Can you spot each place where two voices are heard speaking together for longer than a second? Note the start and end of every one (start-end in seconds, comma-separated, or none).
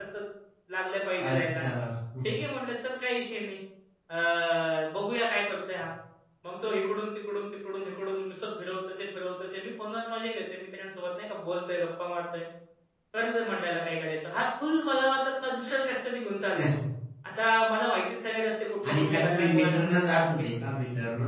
18.9-20.4